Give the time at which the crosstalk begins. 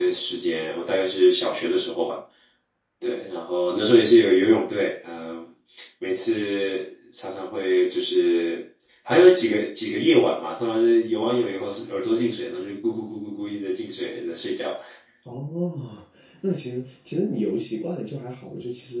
none

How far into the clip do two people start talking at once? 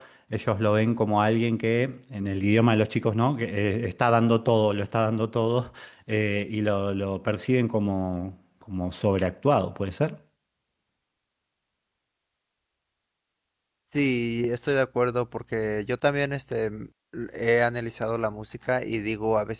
none

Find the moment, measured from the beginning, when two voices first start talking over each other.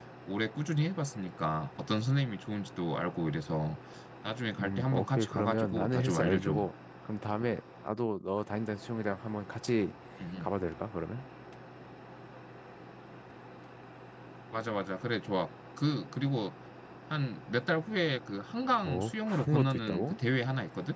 4.6 s

